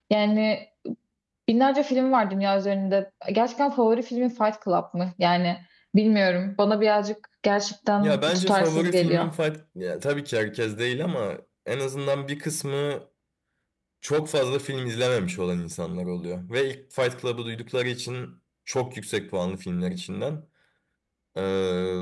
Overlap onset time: 8 s

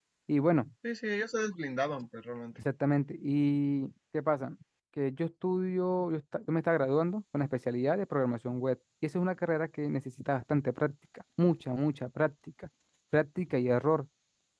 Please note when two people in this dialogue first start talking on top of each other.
none

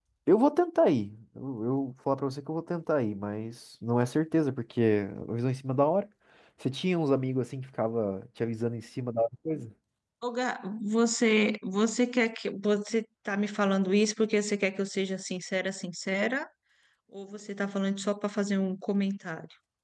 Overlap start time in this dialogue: none

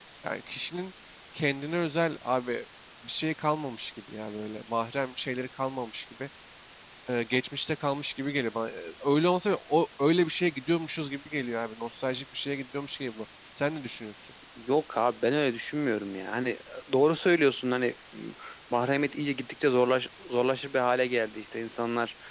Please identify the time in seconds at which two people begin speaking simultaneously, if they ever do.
none

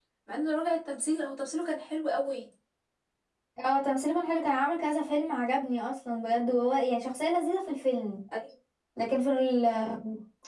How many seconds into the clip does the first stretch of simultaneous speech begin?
none

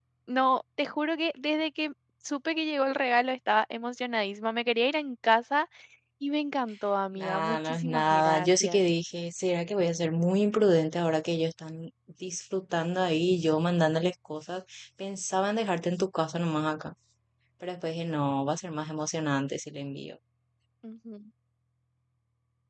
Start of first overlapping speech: 7 s

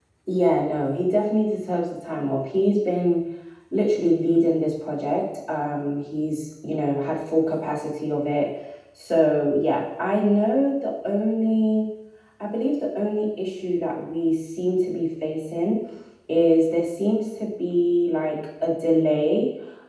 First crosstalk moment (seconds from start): none

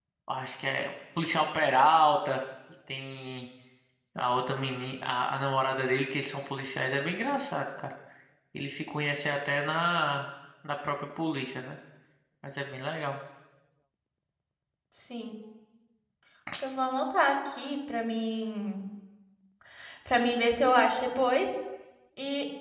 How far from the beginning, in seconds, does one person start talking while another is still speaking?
none

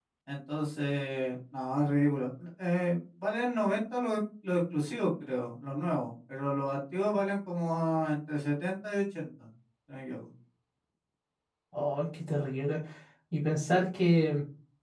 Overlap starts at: none

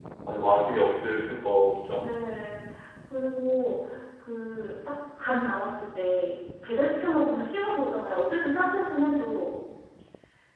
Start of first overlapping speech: none

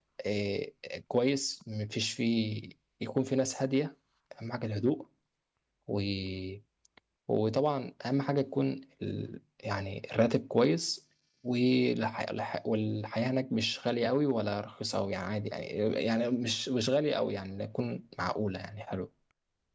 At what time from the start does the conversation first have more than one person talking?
none

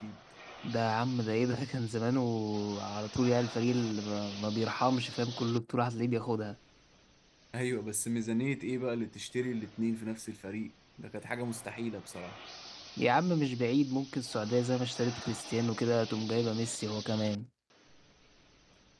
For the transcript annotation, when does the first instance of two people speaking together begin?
none

